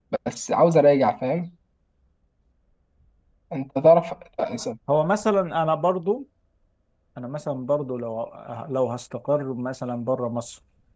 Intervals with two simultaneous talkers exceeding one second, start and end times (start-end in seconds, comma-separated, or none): none